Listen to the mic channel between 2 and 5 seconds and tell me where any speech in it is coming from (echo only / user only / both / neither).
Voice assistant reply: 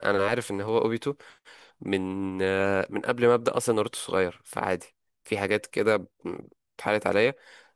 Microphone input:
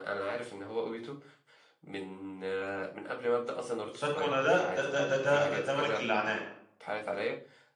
both